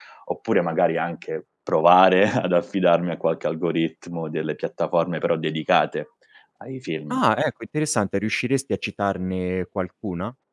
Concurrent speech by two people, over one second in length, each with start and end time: none

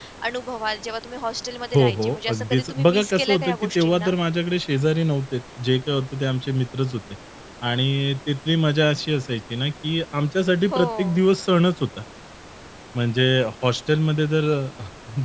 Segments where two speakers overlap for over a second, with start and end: 1.8-4.1

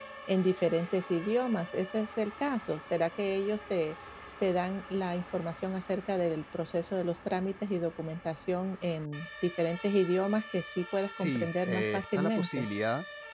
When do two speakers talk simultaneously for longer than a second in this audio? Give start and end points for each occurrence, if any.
11.1-12.7

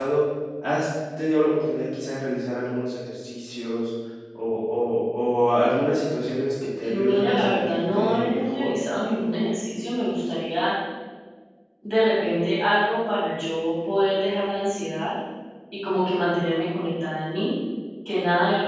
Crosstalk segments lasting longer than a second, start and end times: 6.9-8.7

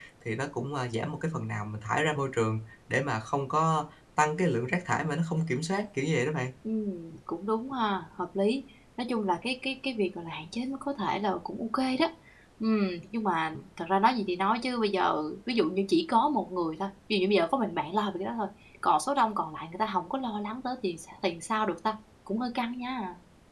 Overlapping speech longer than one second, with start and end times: none

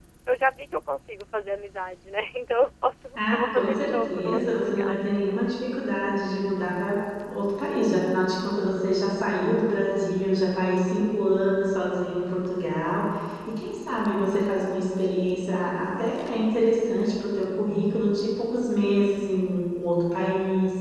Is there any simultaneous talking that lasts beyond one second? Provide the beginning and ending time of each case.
3.1-5.0

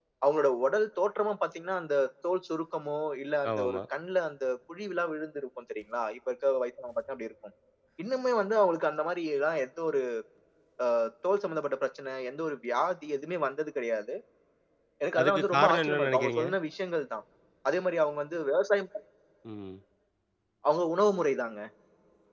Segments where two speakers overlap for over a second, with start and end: 15.2-16.4

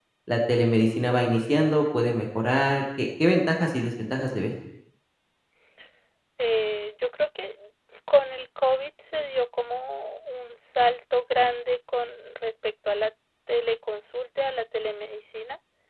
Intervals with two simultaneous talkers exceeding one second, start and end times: none

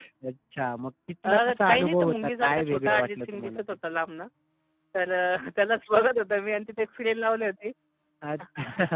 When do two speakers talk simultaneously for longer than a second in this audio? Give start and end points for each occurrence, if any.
1.2-3.6

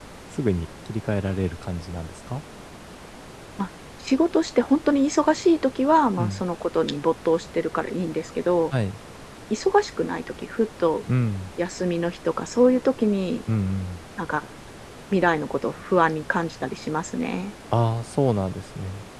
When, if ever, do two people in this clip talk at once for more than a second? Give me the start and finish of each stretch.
none

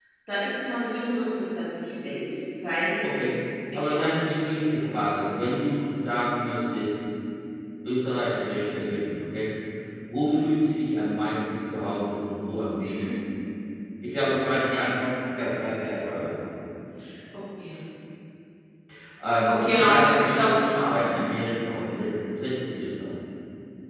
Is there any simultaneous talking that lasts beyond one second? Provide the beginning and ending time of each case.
3.7-5.4, 19.4-21.1

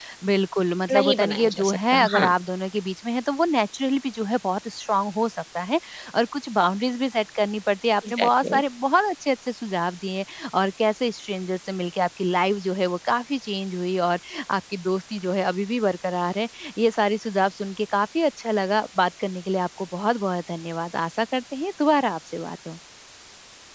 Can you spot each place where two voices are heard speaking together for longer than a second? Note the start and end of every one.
0.9-2.3

